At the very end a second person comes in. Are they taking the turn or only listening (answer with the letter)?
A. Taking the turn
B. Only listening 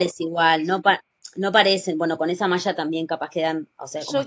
A